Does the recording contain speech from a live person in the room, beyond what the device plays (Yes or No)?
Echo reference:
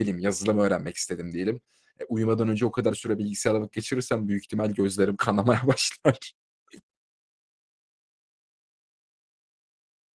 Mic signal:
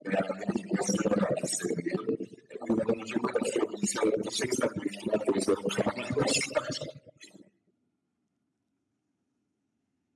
No